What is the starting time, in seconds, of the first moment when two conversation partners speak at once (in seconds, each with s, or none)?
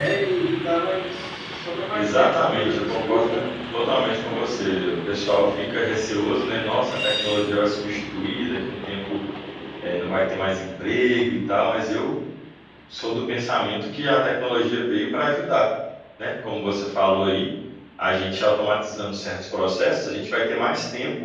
1.9 s